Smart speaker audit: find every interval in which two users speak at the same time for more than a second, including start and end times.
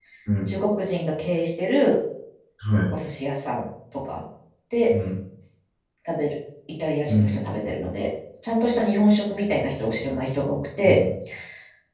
none

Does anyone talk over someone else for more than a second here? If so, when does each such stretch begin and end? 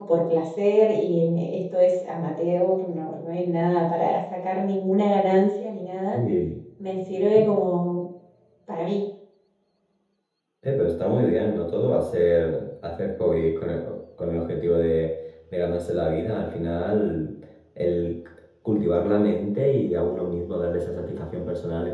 none

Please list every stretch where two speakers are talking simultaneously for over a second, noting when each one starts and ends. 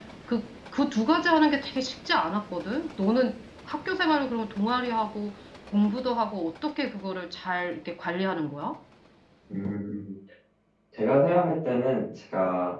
none

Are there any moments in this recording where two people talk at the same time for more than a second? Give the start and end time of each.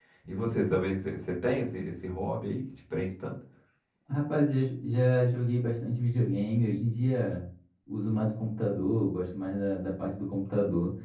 none

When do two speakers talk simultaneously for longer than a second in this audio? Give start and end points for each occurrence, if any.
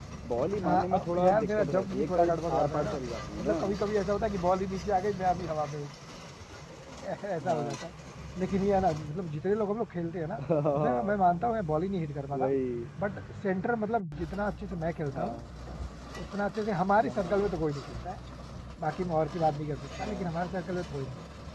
0.6-3.0

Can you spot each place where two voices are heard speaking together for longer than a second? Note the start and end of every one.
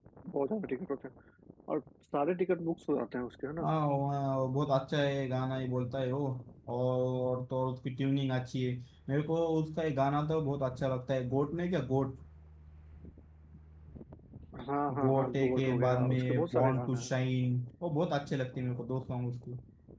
15.0-17.1

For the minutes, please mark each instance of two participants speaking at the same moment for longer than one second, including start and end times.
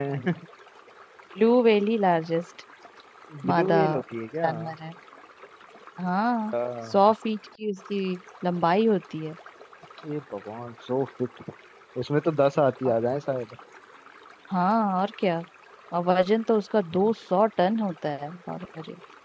none

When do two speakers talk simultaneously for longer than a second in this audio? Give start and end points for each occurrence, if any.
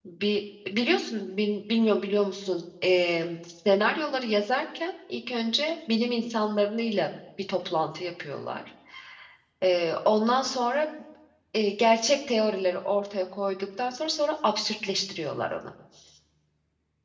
none

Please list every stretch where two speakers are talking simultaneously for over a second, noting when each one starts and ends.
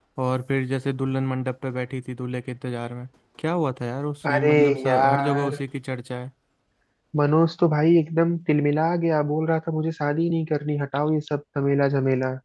4.3-5.6

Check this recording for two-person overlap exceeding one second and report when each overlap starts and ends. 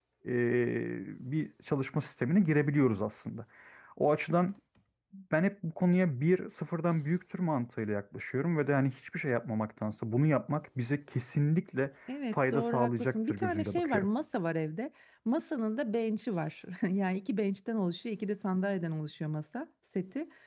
12.3-14.1

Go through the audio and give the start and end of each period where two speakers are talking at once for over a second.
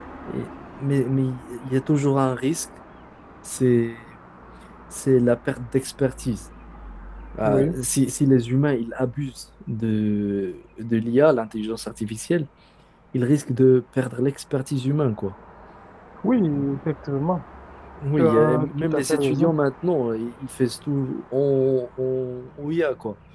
18.2-19.5

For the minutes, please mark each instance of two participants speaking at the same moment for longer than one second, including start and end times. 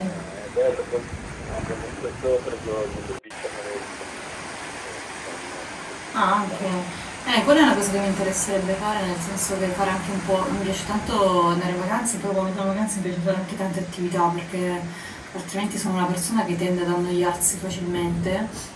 none

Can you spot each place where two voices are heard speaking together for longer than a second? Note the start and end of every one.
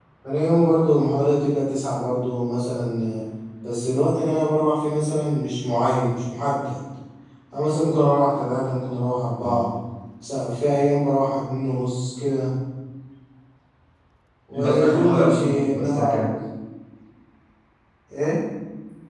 14.6-16.2

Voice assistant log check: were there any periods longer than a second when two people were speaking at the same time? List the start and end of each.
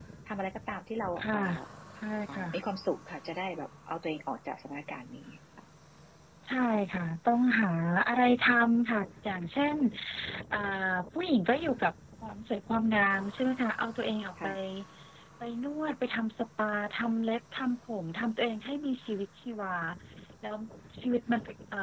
none

